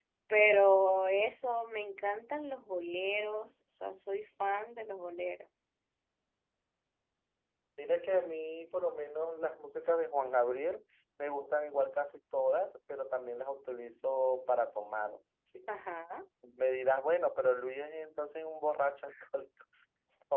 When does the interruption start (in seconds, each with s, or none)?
none